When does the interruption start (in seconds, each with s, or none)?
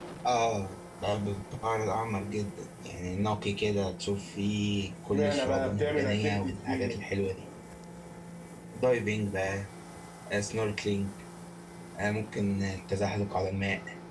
5.1 s